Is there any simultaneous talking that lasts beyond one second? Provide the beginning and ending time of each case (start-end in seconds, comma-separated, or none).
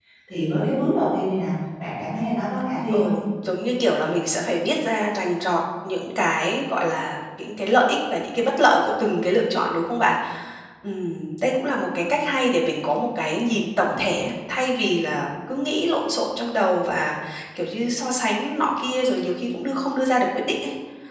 none